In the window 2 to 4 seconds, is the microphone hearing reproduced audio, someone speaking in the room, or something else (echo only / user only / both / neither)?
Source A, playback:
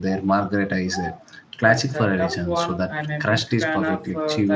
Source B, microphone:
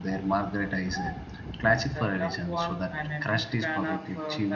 echo only